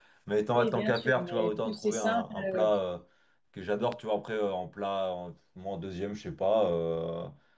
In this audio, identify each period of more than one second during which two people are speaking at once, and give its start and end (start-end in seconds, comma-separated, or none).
0.6-2.6